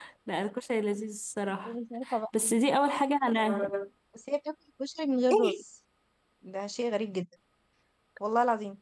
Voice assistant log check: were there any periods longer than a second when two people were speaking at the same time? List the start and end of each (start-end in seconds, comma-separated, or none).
none